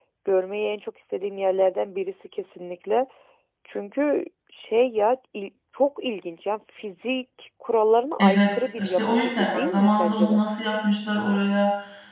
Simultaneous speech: Yes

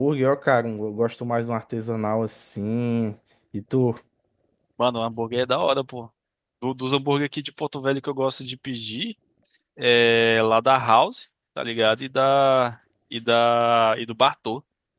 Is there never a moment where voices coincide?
Yes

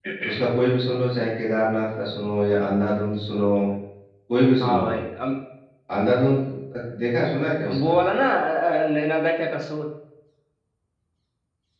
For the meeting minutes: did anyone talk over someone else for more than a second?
No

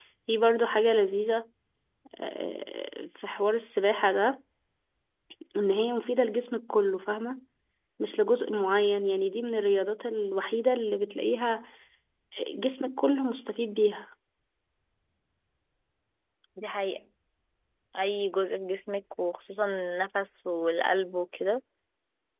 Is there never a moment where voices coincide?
Yes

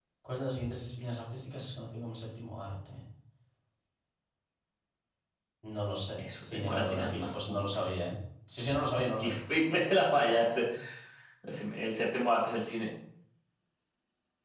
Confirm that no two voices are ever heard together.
No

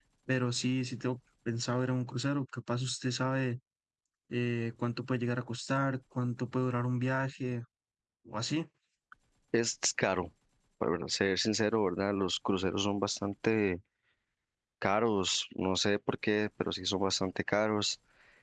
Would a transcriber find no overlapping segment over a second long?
Yes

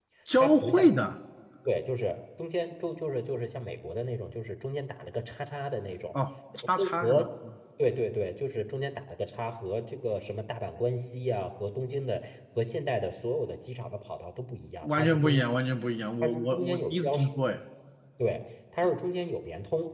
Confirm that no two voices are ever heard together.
No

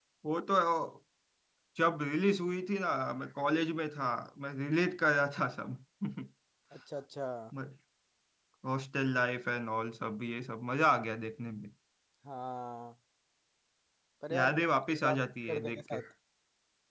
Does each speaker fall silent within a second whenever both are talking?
No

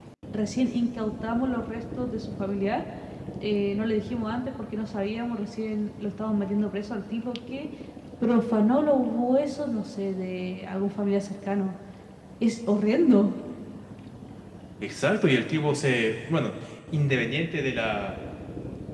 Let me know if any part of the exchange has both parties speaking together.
No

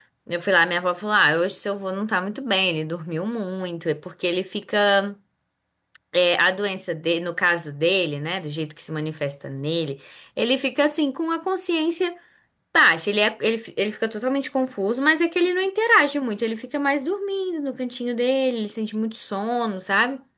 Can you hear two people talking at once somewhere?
No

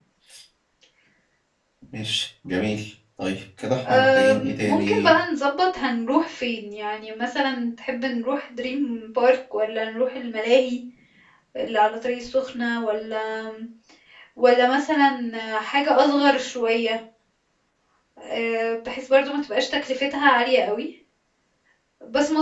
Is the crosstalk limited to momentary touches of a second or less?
No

